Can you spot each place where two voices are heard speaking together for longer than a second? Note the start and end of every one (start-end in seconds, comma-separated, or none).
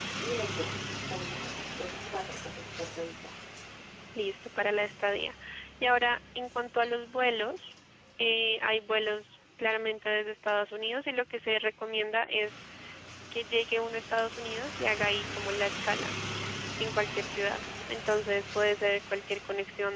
none